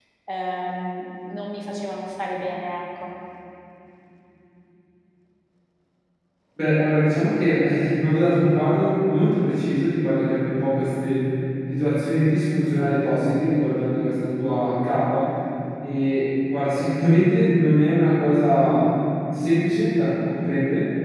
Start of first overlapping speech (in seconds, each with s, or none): none